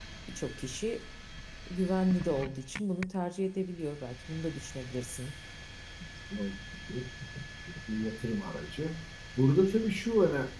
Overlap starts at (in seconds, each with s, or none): none